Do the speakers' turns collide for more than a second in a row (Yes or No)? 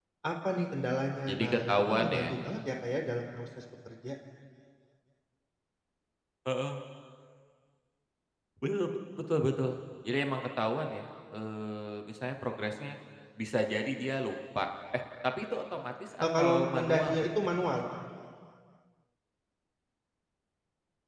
Yes